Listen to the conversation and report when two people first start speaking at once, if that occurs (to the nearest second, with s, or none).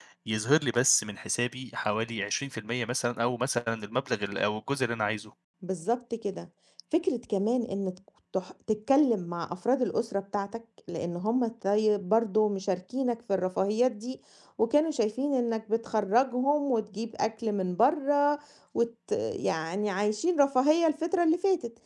none